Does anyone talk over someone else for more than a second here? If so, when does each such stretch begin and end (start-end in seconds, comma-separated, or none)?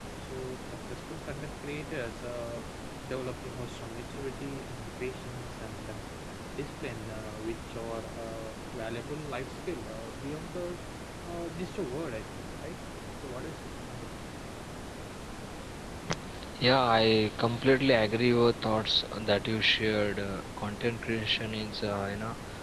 none